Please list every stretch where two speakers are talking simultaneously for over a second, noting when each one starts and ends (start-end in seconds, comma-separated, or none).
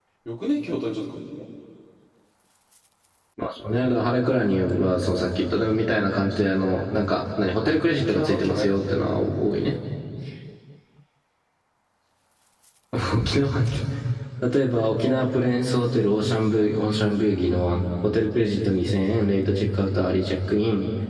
8.0-9.3